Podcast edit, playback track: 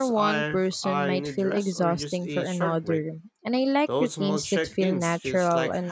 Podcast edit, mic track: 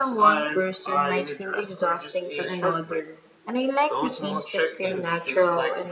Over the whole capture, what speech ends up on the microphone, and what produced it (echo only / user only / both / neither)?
echo only